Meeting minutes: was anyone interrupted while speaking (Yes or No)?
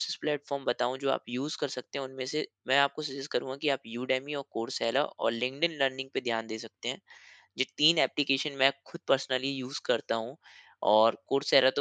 No